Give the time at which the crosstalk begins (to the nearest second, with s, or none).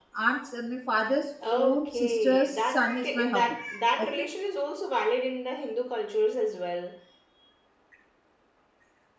2 s